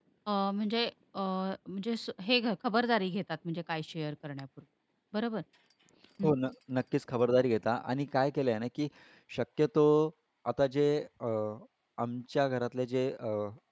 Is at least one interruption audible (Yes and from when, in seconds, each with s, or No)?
No